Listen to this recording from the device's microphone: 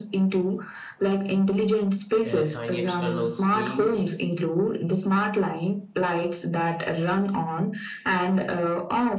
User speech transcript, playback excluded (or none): uh, tiny external screens,